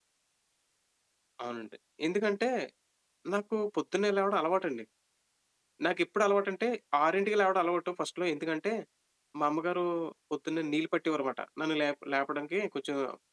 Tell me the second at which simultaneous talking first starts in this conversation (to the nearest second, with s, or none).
none